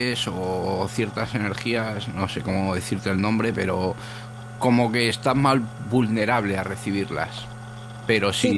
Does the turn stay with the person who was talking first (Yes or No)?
Yes